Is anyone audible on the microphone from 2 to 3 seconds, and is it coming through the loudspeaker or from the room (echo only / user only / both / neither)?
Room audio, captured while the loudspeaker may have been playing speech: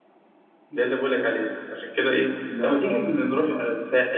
both